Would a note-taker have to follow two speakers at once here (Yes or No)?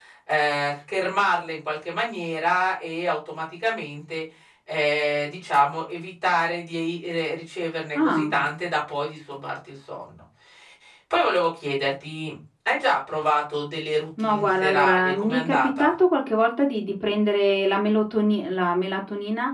Yes